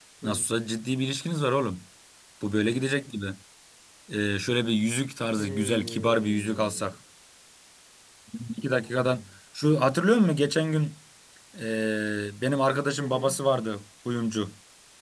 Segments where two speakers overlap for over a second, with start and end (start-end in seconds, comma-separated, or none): 5.4-6.9